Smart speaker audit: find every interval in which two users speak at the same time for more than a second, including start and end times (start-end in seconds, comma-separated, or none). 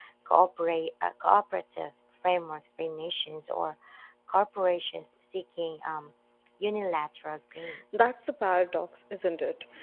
none